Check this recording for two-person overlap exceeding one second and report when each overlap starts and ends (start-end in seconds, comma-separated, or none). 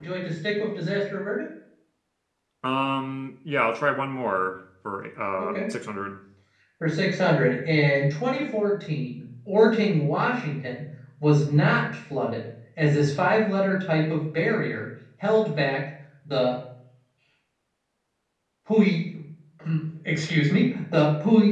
none